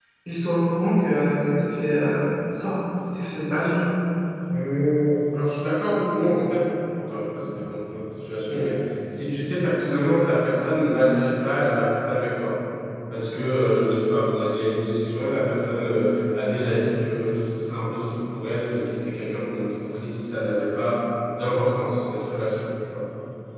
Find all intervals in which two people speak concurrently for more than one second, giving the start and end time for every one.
none

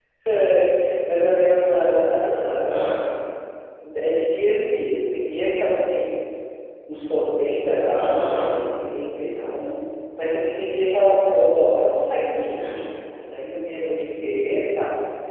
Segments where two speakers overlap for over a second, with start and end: none

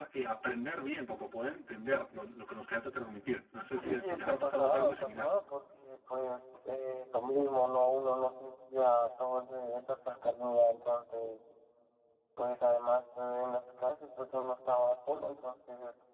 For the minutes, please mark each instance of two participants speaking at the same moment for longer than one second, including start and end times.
3.7-5.4

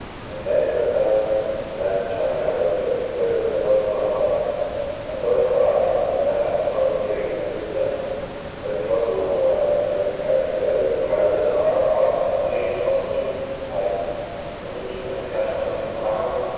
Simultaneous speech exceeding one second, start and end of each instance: none

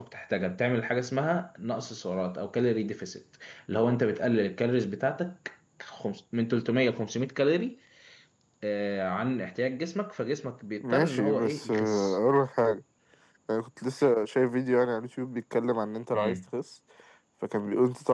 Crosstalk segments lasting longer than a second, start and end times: 10.8-12.2

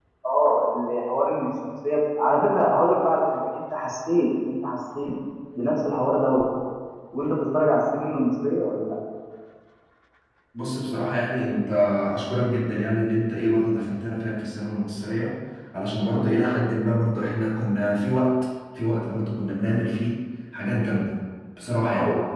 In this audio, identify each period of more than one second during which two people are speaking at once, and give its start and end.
none

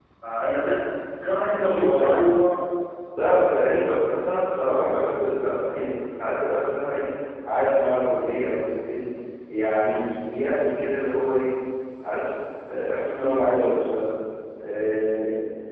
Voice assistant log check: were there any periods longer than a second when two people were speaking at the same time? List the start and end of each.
none

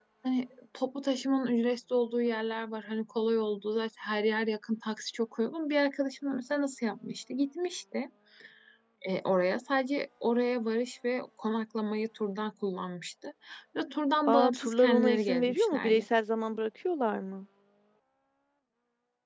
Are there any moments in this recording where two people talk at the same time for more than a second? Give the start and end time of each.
14.3-16.0

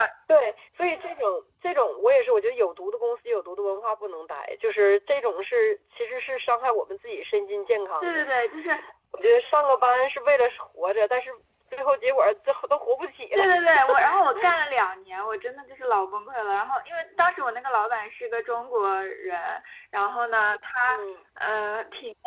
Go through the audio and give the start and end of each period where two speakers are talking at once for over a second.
none

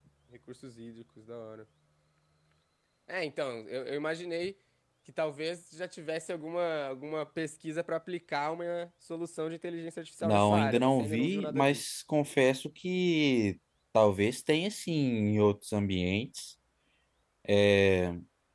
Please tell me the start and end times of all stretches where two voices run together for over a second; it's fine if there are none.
10.2-11.8

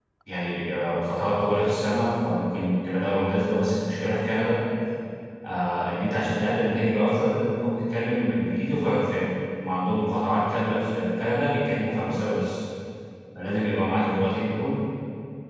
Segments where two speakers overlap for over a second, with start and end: none

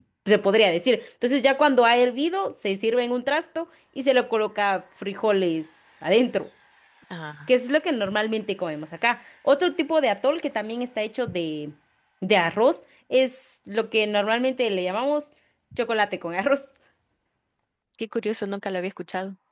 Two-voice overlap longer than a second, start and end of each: none

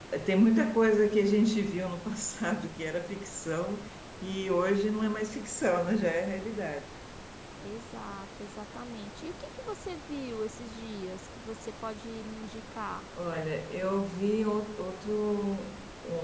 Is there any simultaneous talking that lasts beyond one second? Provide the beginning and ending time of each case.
none

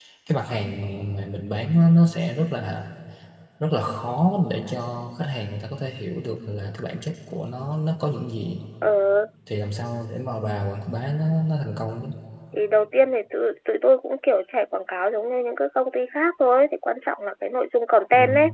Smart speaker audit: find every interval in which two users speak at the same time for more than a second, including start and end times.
none

